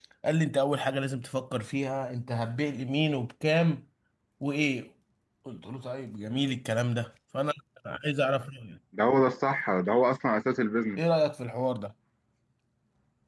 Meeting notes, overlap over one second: none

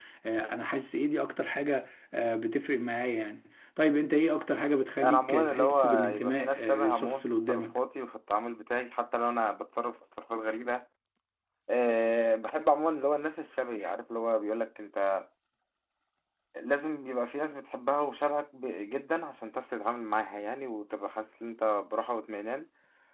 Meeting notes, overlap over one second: present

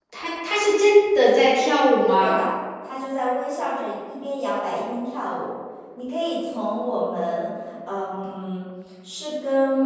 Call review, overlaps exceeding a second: none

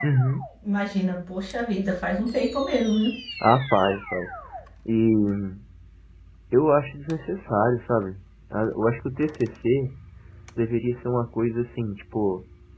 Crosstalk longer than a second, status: none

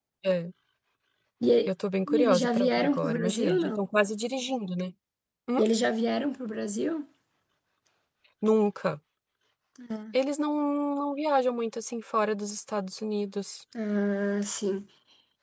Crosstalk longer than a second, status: present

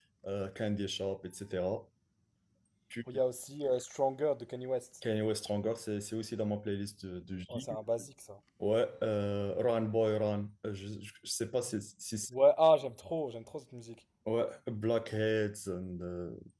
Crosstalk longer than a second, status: none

